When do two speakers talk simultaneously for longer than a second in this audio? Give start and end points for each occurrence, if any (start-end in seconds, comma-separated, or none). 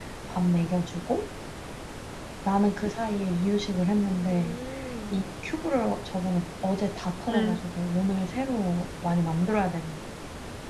none